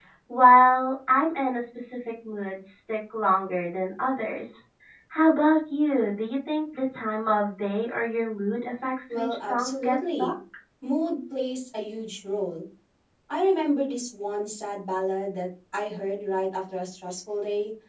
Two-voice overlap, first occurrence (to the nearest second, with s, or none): 9 s